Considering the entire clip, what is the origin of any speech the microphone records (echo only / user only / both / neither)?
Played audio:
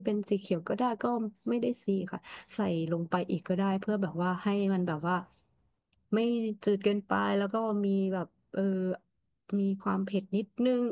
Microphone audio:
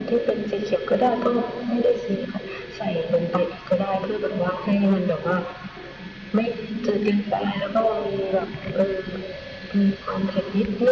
echo only